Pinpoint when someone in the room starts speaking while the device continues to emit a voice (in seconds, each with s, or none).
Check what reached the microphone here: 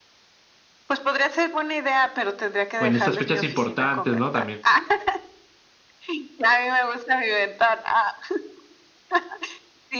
2.8 s